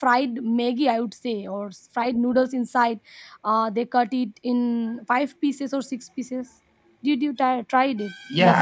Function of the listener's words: taking over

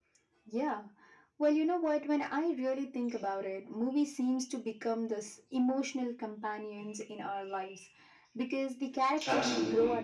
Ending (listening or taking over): listening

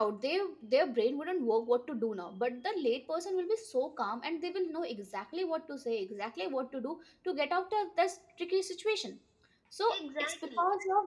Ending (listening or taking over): listening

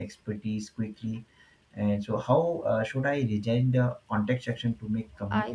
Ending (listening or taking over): taking over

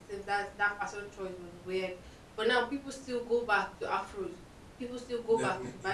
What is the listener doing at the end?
listening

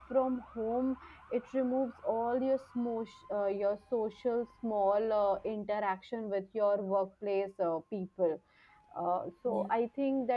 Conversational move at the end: listening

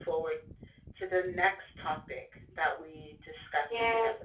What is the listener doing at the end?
taking over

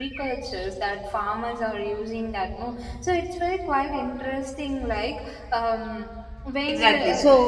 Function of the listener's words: taking over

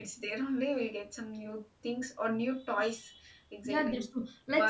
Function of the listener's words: taking over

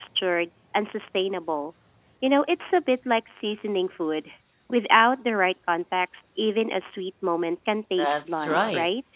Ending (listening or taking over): taking over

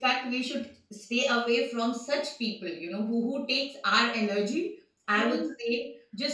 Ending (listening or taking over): listening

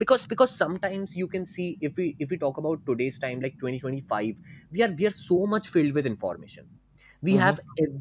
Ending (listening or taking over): listening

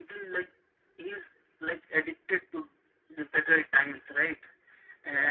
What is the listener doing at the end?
listening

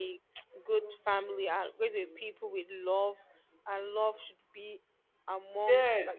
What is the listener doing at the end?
taking over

